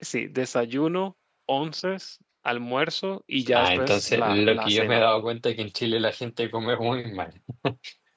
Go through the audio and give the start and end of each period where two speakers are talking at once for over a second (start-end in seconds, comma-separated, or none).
3.5-5.0